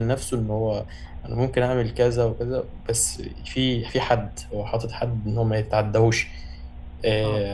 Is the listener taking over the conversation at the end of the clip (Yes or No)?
No